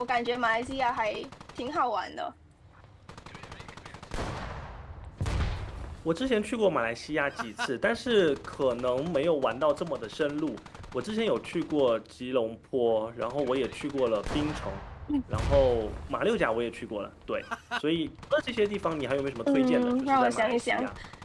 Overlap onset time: 19.5 s

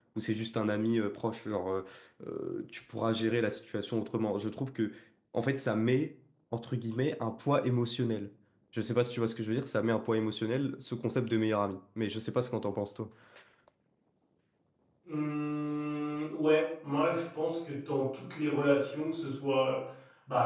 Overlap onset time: none

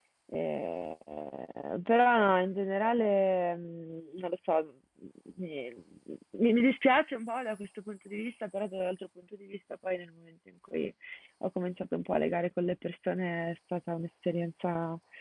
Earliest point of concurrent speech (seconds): none

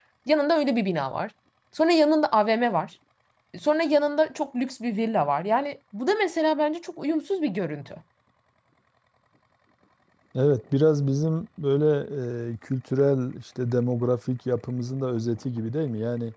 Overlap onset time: none

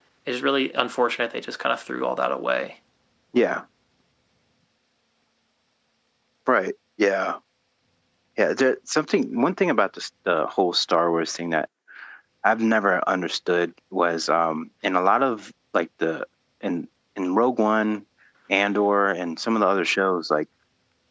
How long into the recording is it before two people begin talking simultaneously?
none

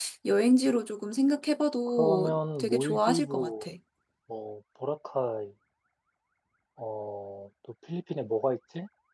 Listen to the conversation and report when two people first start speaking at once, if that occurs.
2.0 s

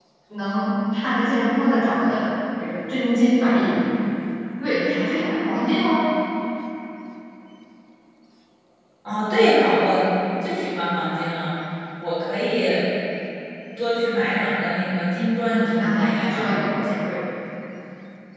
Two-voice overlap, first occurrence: 15.4 s

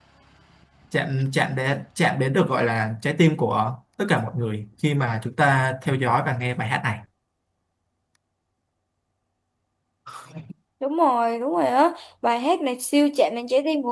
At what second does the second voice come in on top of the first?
none

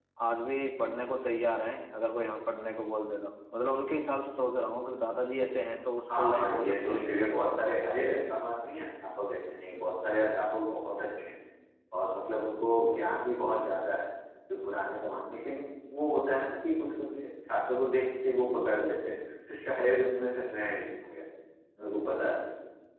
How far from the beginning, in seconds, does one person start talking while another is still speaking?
6.1 s

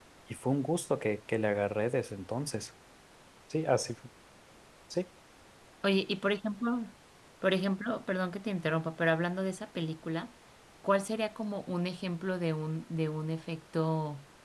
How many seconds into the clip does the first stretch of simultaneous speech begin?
none

